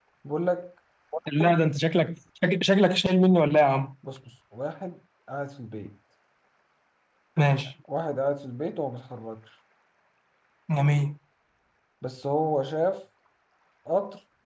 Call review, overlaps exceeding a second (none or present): none